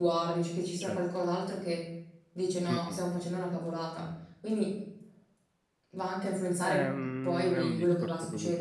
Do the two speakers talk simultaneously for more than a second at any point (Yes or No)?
Yes